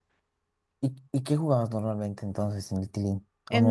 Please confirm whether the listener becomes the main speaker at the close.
Yes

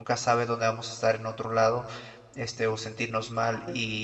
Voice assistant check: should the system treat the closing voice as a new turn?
No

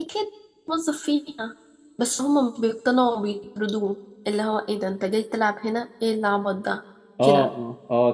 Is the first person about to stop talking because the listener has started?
Yes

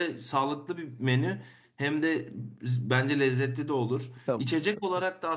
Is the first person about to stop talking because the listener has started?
No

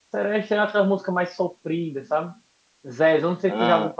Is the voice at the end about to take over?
No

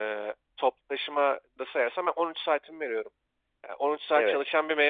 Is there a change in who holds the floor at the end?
No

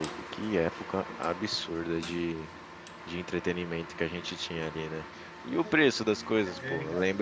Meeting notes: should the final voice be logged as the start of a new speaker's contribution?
No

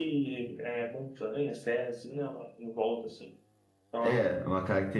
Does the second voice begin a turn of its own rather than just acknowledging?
Yes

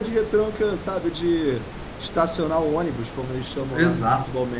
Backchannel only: No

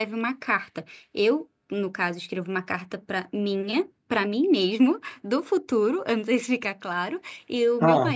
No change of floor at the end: Yes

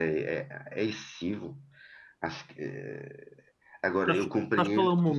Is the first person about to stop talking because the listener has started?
Yes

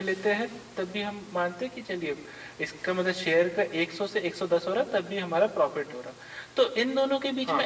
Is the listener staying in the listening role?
Yes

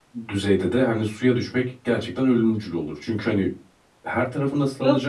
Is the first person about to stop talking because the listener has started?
Yes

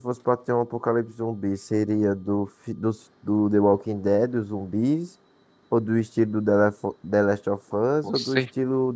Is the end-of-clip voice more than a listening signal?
No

